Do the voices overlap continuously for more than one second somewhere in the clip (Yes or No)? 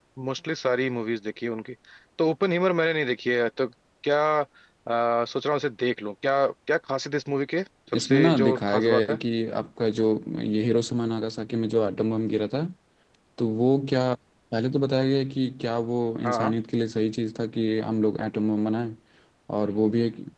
Yes